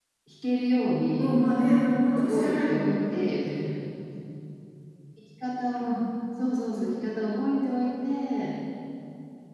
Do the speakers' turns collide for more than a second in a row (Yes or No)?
Yes